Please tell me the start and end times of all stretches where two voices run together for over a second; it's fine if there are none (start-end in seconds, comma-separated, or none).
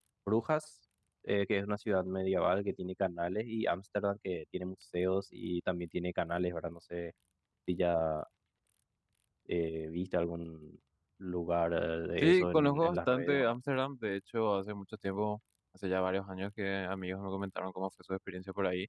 12.2-13.5